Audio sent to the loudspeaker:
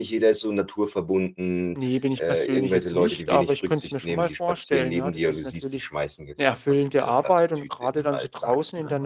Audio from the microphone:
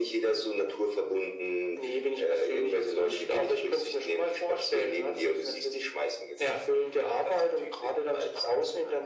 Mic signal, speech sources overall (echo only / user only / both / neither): echo only